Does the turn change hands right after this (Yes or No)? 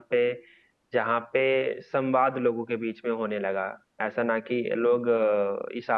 No